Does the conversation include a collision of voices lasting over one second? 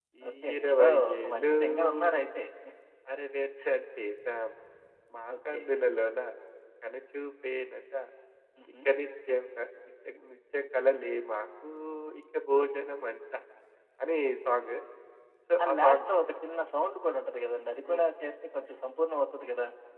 Yes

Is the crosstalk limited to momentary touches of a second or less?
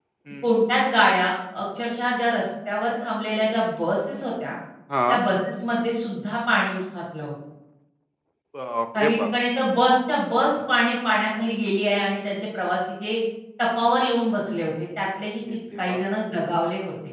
Yes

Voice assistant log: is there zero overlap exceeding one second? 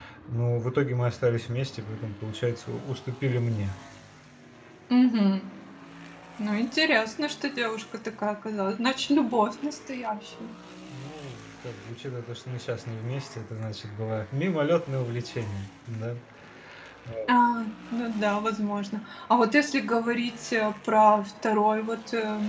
Yes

